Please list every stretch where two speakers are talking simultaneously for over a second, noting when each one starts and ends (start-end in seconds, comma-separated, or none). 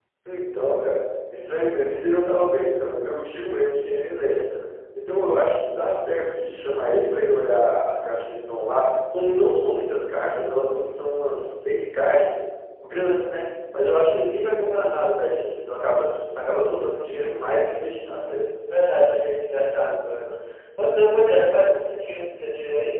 none